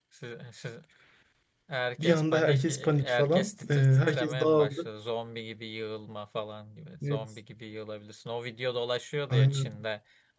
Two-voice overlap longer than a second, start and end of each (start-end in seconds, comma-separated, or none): 2.0-4.9